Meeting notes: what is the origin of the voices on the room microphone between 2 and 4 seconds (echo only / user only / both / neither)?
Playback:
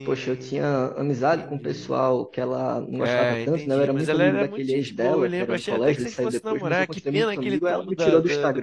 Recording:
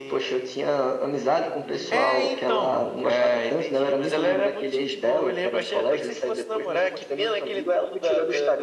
both